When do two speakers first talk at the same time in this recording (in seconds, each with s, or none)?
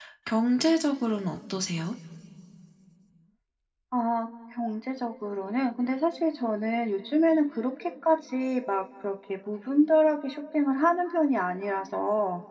none